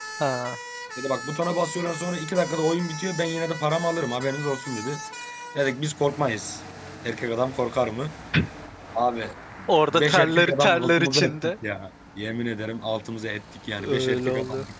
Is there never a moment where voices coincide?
No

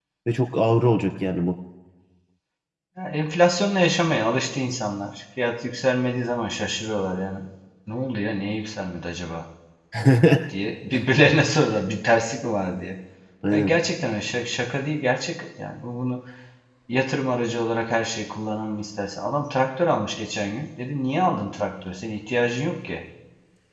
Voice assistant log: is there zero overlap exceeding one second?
Yes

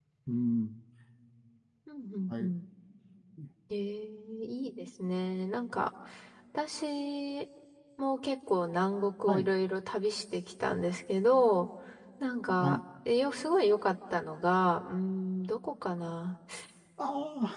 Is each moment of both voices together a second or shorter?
Yes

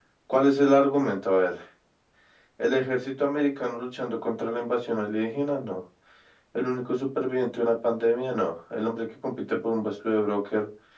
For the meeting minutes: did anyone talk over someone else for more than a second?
No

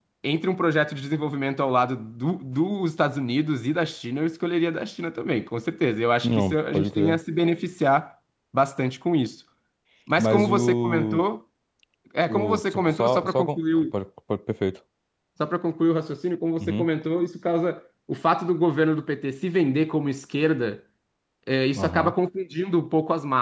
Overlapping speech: Yes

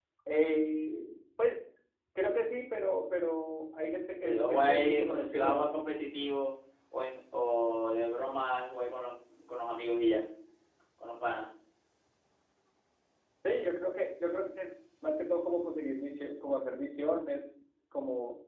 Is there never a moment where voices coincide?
No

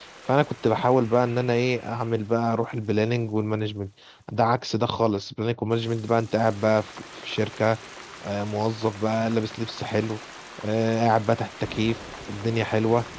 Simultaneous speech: No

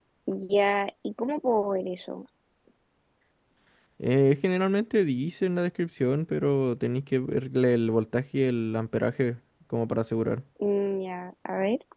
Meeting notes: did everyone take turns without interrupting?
Yes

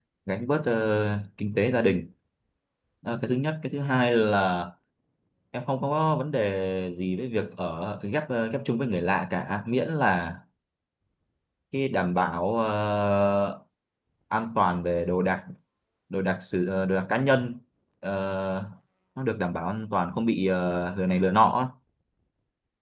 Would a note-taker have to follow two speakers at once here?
No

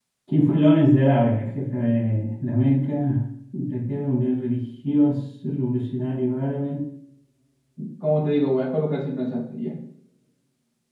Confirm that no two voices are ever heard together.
Yes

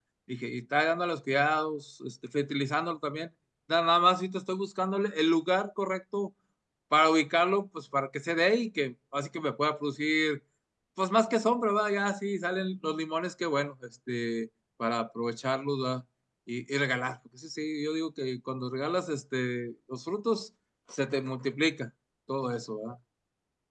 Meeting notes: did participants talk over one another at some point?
No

